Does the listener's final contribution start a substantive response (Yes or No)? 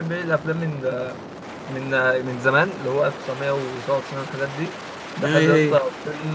No